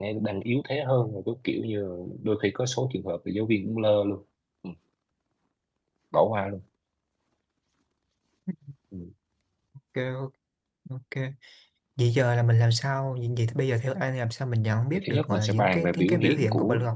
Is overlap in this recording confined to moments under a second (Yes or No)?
No